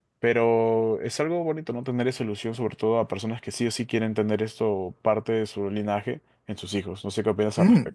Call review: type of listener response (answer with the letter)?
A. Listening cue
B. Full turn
B